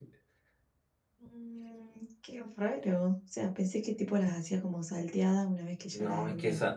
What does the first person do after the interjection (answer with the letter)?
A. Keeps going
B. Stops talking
B